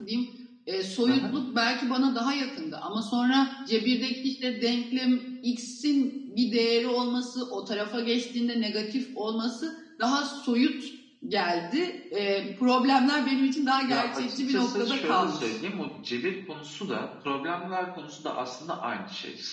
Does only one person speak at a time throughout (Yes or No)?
No